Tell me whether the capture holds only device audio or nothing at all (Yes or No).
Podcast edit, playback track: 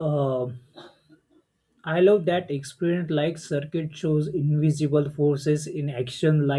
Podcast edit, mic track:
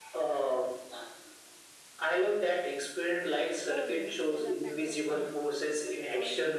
No